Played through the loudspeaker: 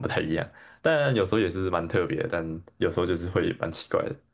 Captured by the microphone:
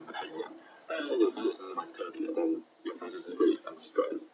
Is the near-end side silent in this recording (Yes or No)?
Yes